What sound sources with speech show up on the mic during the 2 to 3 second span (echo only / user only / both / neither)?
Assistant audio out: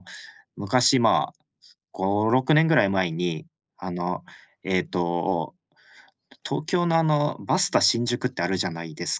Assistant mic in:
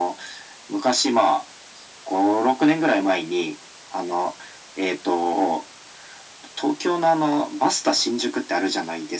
echo only